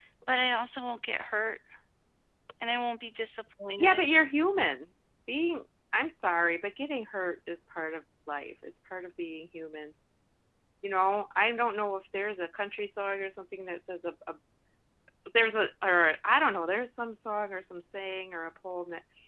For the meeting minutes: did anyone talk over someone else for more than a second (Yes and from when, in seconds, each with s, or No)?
No